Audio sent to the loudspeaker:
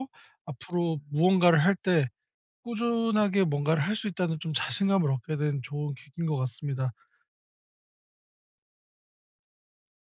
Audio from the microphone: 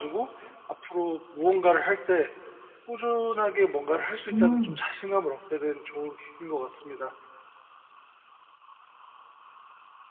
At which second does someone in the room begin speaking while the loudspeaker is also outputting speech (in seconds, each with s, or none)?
4.3 s